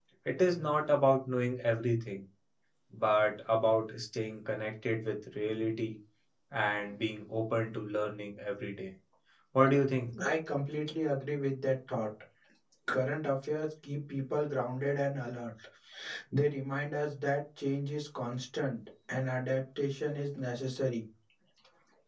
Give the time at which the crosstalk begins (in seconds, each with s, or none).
none